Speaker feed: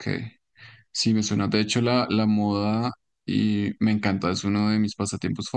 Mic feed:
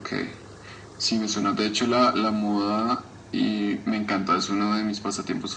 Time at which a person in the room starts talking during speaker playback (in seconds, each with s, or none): none